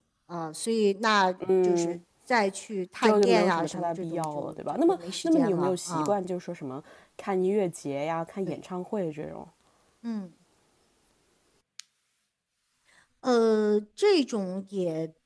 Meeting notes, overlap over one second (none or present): present